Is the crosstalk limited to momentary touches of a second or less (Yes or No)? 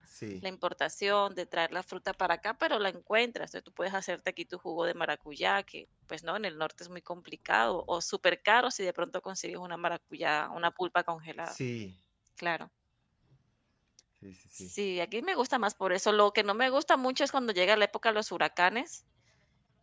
Yes